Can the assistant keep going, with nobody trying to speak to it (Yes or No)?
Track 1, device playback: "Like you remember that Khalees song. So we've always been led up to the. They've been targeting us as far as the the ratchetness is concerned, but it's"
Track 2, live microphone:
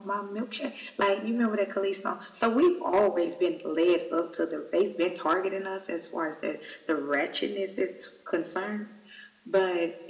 Yes